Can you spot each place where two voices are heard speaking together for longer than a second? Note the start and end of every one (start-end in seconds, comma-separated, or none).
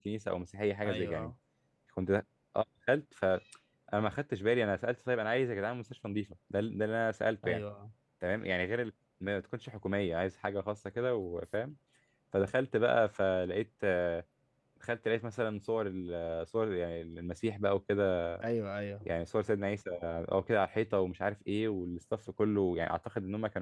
none